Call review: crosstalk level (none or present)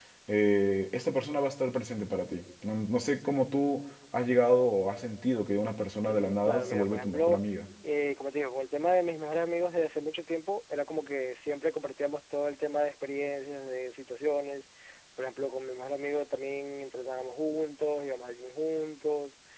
present